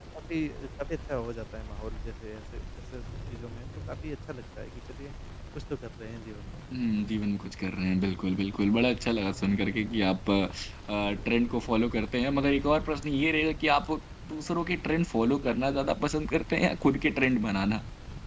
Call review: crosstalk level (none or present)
none